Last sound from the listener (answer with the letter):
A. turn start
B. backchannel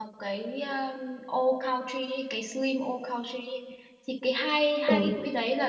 B